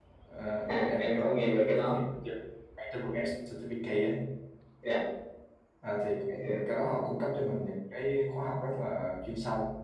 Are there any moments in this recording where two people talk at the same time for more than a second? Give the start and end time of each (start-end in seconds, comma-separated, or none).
0.7-2.0